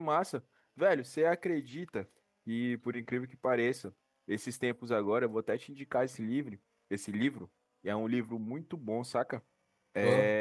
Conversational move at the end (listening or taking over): listening